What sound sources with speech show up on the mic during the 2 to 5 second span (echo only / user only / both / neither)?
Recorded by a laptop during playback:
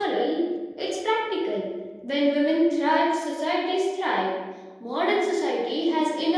user only